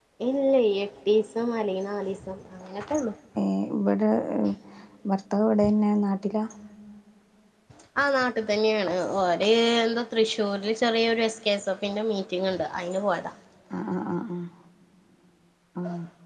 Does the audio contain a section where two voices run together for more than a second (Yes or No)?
No